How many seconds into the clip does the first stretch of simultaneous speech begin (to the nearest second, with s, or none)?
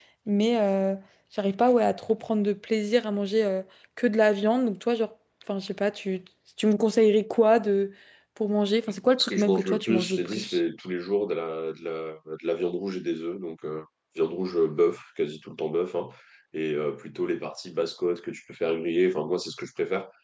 9 s